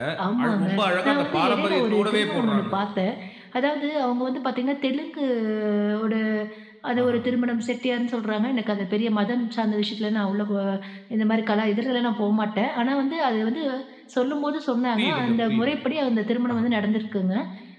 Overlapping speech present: Yes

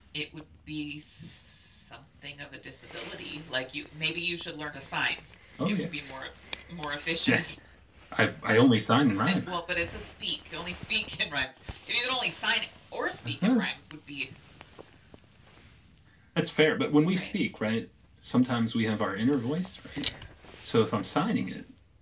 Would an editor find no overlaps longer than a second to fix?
Yes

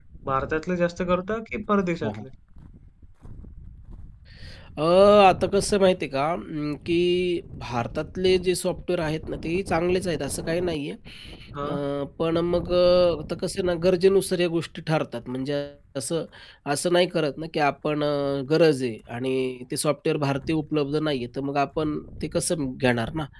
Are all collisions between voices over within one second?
Yes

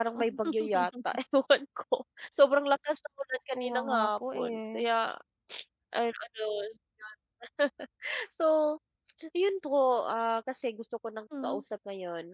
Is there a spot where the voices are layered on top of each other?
Yes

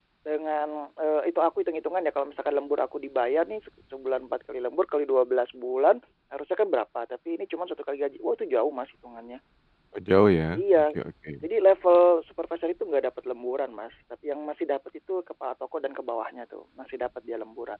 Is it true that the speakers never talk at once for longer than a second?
Yes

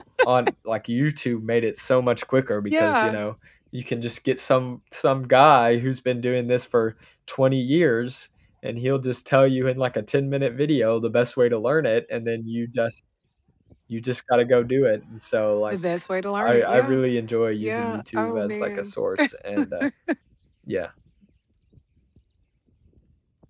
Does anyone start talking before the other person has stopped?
Yes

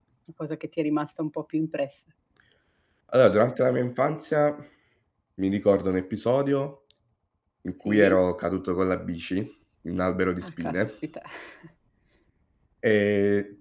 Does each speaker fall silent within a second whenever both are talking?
Yes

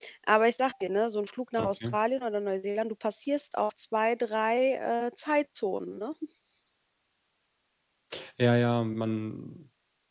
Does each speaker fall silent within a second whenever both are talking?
Yes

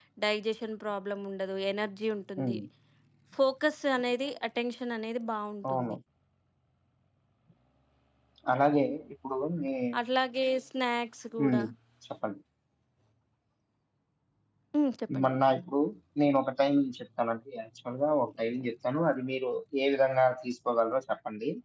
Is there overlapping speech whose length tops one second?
No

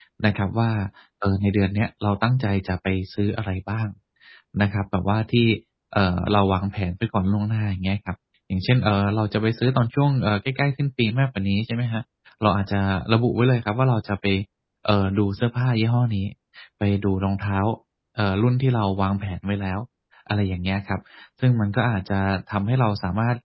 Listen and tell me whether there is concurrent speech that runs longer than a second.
No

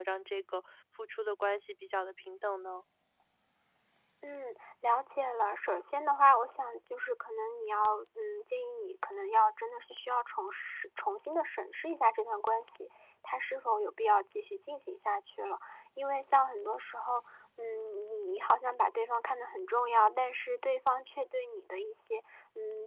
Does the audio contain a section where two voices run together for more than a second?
No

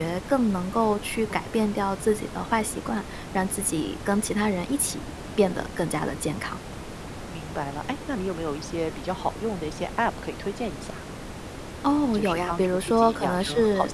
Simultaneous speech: Yes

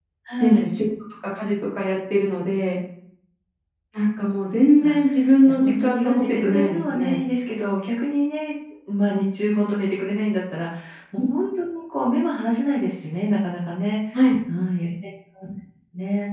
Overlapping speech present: Yes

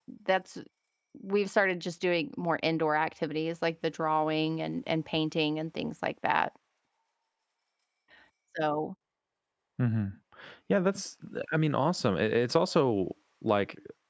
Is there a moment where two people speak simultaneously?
No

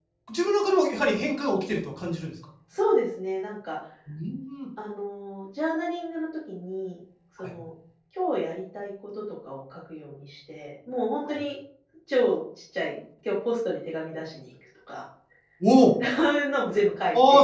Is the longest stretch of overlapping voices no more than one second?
Yes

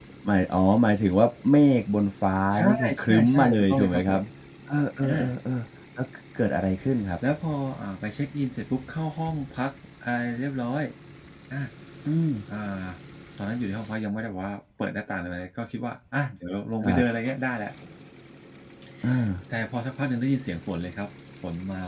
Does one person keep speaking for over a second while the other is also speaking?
Yes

